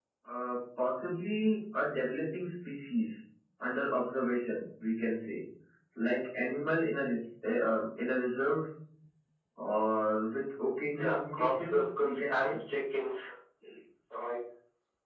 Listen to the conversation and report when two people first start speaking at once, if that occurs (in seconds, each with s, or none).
11.0 s